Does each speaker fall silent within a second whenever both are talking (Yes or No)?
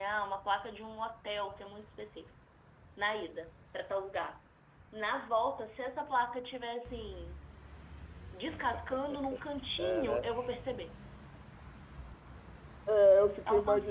Yes